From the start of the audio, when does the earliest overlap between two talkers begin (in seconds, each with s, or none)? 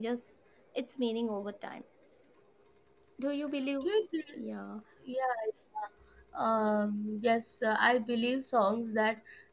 none